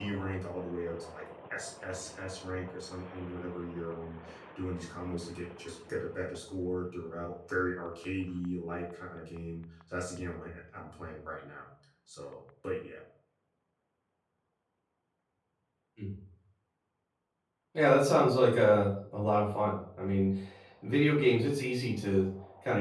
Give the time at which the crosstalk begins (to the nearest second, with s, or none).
none